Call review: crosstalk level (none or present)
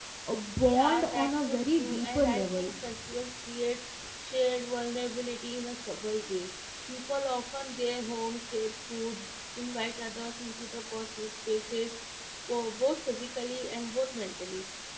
present